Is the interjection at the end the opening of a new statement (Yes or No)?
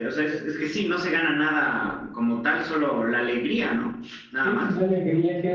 Yes